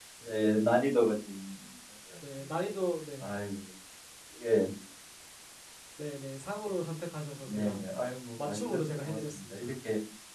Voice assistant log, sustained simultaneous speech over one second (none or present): present